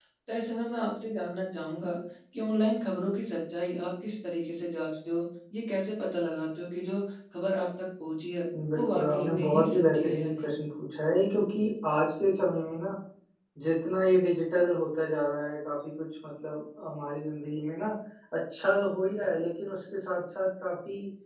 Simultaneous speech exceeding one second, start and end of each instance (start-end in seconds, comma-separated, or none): 8.7-10.5